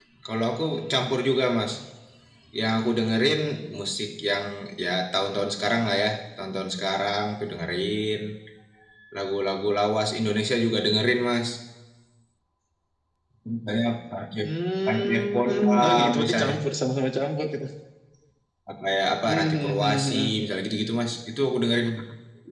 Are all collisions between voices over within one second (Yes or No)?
No